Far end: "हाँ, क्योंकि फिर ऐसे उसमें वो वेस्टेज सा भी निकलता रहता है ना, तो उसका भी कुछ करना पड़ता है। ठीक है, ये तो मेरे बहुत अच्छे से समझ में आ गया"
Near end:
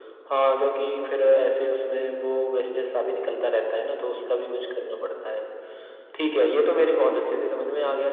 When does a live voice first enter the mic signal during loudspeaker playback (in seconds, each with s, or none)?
none